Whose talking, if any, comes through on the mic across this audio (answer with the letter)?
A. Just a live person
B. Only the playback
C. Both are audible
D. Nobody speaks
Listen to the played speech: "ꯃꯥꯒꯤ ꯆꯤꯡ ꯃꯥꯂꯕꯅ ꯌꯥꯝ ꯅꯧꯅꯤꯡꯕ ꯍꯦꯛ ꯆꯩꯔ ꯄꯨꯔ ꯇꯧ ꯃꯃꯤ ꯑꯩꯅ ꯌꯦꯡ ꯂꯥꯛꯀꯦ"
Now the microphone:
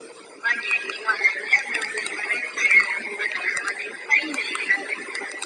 B